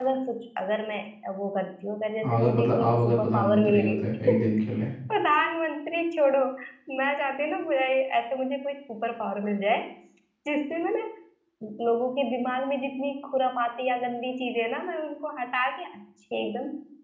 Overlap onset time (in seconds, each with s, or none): 2.2 s